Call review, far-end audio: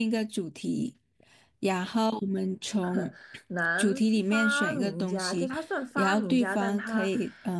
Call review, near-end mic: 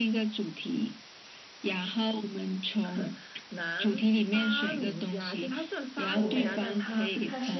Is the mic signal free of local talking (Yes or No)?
No